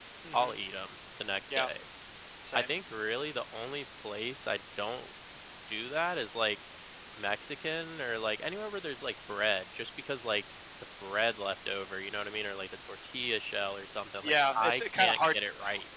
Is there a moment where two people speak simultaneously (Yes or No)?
Yes